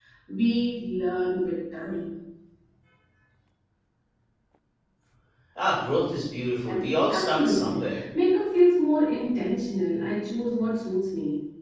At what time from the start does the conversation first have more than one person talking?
6.7 s

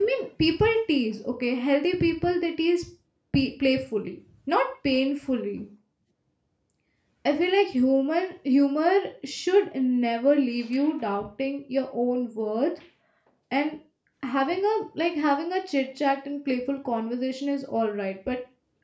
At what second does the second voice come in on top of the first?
none

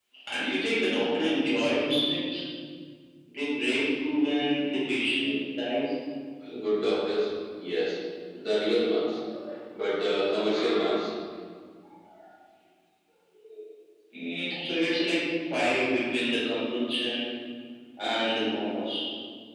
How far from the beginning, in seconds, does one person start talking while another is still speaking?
none

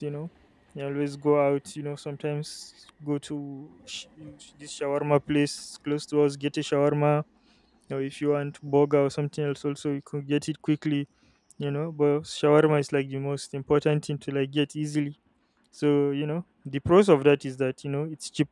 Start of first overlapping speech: none

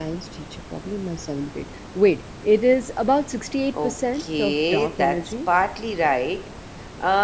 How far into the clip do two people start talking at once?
3.7 s

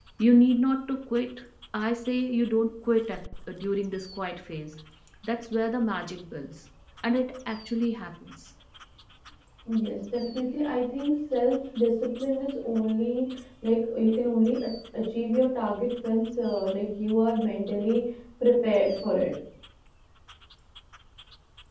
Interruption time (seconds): none

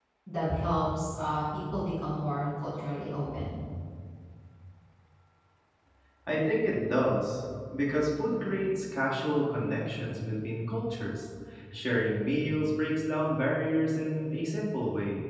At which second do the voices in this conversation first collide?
none

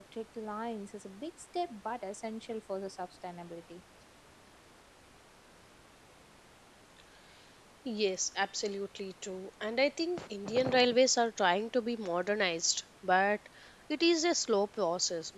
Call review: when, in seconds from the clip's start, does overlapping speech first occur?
none

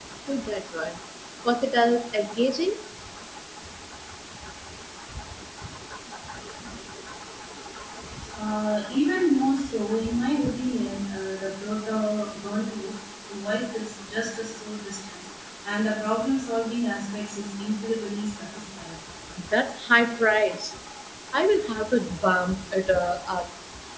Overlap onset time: none

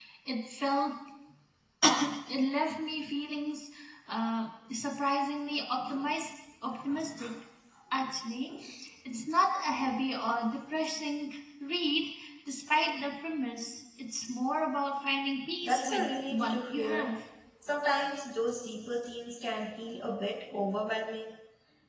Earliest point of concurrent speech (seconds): 15.6 s

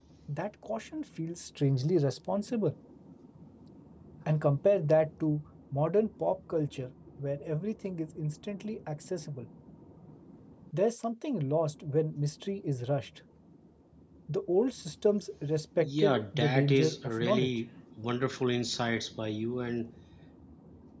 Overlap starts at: 15.8 s

